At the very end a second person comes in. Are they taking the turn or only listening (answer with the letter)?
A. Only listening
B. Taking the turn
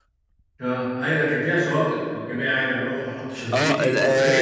B